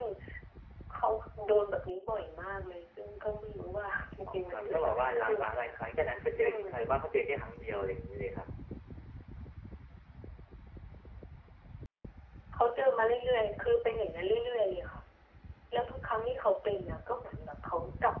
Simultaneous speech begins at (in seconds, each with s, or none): 4.3 s